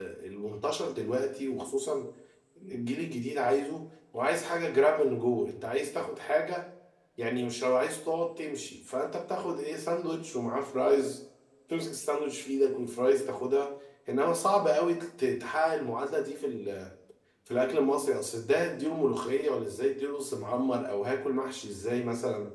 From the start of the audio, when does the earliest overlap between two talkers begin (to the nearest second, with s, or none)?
none